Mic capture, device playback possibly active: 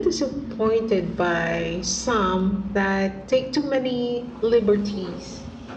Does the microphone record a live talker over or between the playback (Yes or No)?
No